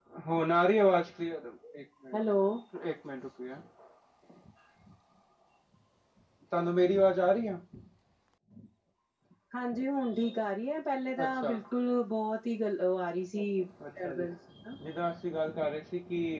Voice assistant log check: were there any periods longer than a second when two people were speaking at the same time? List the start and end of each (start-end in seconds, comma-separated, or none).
none